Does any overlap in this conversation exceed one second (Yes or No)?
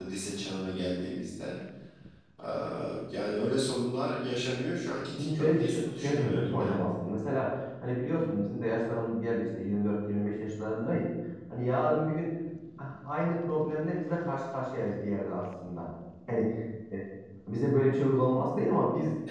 Yes